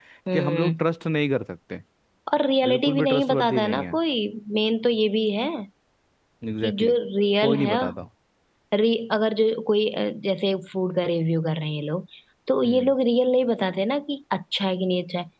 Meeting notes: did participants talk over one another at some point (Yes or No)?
Yes